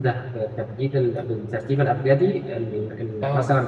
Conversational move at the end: taking over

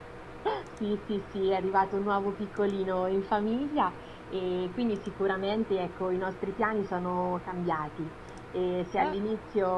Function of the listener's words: listening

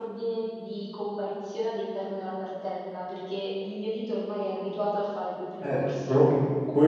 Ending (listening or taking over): taking over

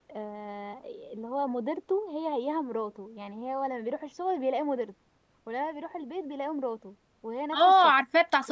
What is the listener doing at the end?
taking over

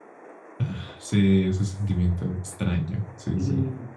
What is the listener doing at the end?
taking over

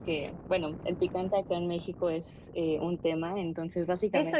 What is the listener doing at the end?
taking over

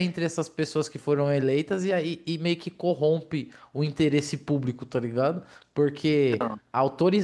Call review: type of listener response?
listening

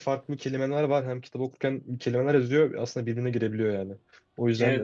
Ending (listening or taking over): listening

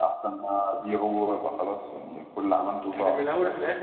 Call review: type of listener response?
taking over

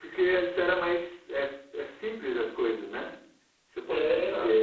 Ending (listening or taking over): listening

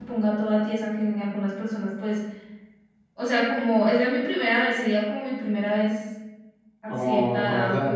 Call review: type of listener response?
taking over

